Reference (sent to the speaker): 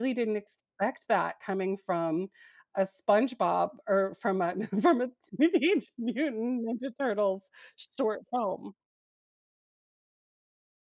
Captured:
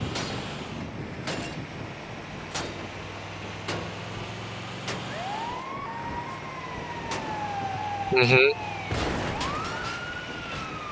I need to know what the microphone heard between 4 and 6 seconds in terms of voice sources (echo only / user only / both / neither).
neither